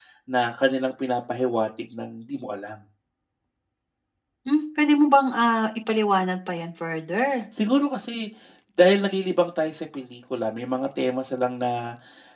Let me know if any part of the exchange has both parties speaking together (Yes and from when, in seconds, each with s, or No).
No